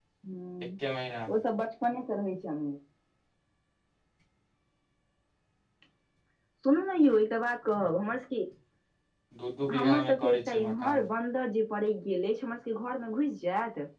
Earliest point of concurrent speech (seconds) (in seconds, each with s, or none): 9.7 s